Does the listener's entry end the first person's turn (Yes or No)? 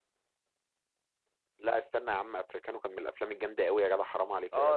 Yes